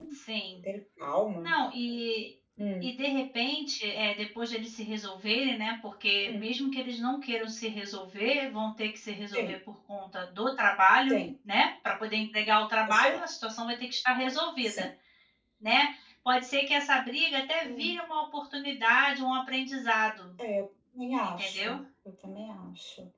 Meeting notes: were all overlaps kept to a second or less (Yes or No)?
Yes